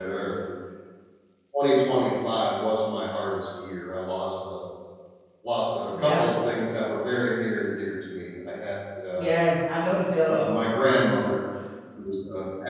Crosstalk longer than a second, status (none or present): none